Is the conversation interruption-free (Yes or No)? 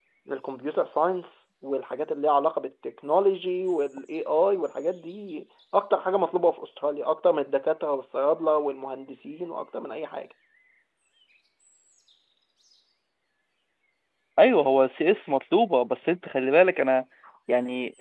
Yes